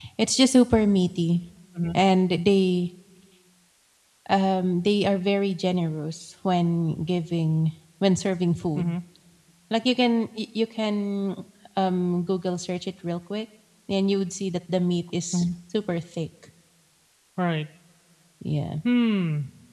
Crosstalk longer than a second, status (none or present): none